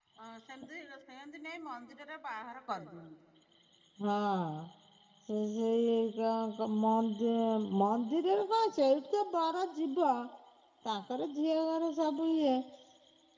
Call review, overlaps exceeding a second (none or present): none